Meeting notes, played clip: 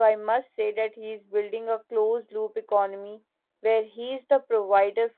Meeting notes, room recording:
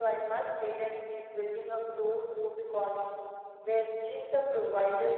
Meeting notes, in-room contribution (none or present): none